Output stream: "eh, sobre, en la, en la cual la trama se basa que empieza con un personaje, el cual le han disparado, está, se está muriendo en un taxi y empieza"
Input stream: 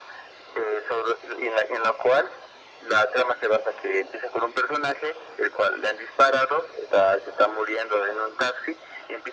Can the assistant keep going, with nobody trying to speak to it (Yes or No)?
Yes